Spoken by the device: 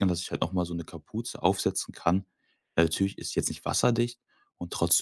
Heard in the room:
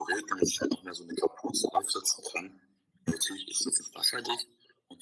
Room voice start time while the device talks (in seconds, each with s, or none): none